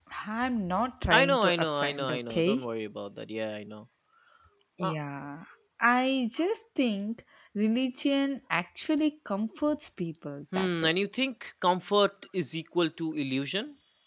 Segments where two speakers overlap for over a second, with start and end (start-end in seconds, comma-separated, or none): 1.1-2.6